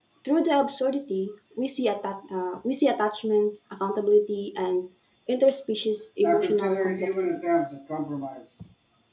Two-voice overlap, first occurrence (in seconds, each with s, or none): 6.2 s